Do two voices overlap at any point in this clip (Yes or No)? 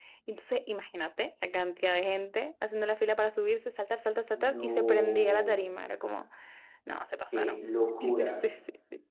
Yes